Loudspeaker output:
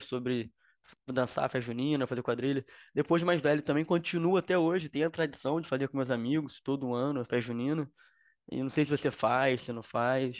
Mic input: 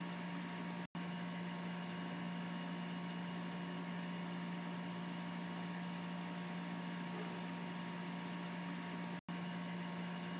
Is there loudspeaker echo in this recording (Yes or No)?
No